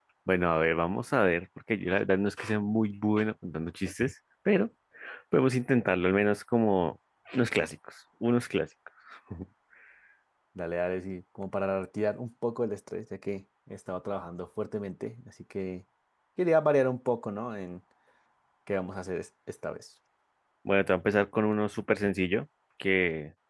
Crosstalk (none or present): none